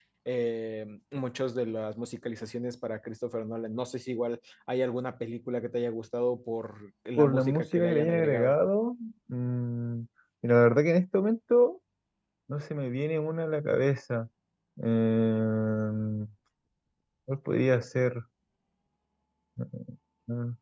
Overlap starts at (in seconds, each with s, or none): 7.2 s